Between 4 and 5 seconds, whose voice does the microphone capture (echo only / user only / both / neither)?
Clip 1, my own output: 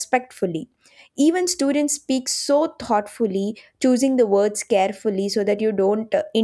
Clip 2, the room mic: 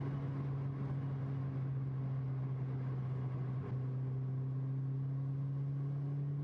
neither